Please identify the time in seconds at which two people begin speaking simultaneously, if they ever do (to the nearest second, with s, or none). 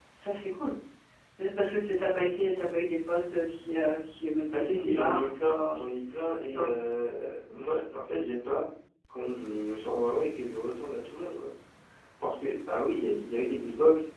5 s